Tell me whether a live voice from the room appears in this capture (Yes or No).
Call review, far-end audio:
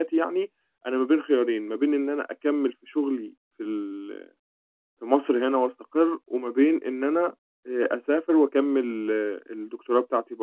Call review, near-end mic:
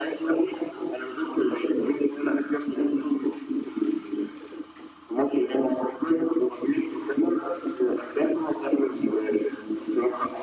No